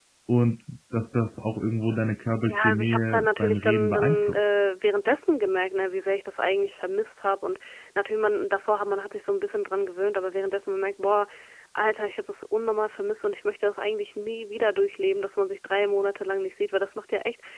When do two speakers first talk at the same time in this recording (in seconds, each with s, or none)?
2.5 s